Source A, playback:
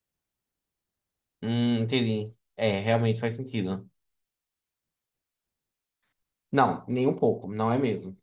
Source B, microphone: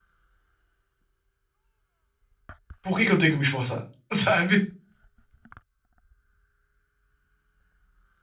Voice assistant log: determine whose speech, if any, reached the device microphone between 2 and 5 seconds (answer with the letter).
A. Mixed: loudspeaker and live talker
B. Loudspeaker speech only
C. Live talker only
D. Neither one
C